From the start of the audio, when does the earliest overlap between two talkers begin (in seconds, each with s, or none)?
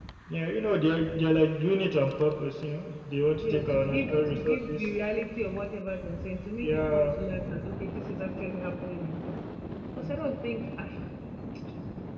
3.5 s